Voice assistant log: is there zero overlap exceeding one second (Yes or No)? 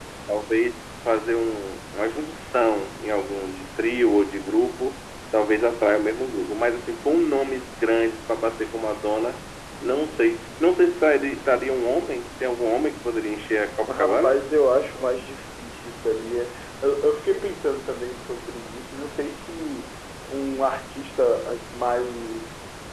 Yes